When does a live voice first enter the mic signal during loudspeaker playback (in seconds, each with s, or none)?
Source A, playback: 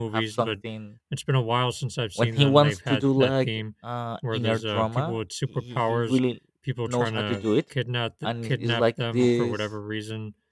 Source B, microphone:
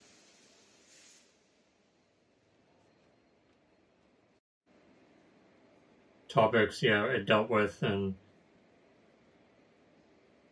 6.3 s